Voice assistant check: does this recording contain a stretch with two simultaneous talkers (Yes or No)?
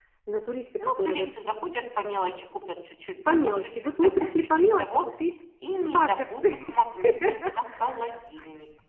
Yes